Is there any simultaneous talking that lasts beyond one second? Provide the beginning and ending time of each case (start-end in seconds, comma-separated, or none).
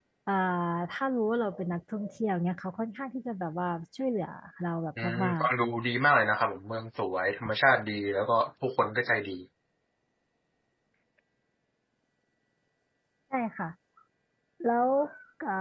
none